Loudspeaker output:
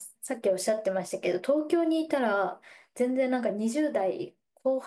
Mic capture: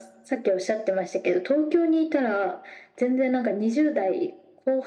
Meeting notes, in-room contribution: none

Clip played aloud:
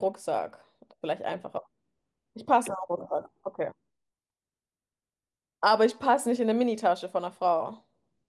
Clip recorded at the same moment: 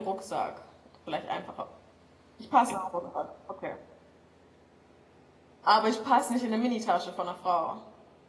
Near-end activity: none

